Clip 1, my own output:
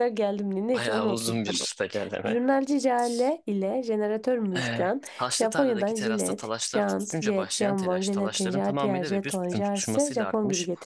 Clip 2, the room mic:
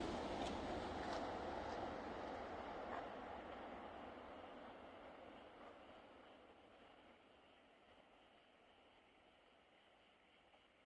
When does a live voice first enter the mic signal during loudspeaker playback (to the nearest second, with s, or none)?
none